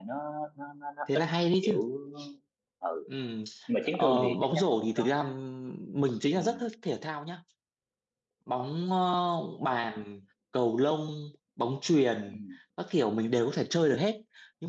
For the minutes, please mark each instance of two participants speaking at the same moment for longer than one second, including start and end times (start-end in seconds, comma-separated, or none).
3.8-5.2